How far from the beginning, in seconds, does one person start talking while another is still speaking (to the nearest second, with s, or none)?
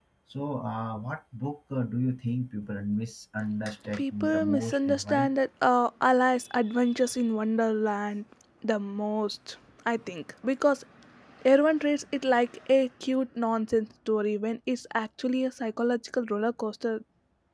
4 s